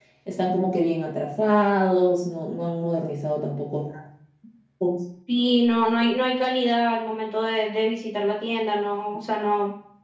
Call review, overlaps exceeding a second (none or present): none